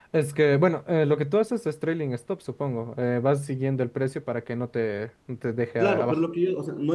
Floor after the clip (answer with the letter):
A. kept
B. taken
B